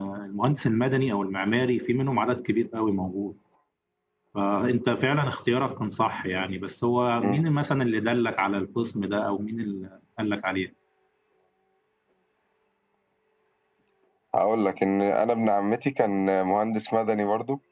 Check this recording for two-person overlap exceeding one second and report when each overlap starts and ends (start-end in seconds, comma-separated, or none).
none